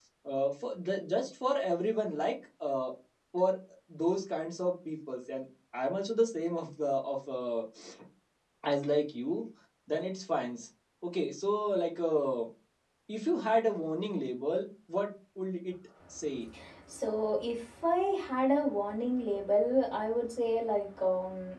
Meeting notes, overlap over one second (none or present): none